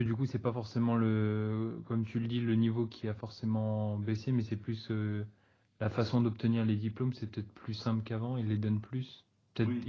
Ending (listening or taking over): taking over